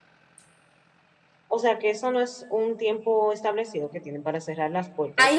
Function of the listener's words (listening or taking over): taking over